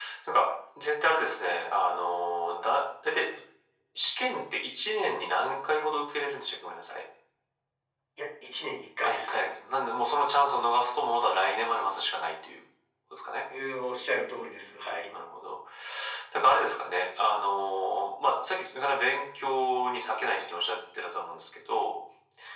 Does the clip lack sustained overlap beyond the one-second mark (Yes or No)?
Yes